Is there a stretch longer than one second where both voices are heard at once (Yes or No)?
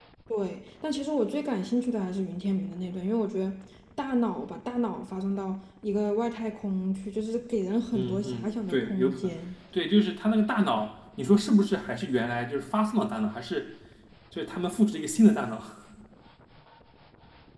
Yes